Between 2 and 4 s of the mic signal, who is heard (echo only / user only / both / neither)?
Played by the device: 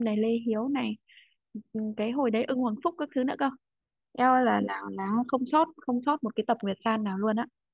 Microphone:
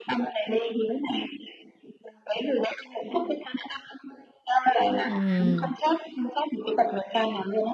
echo only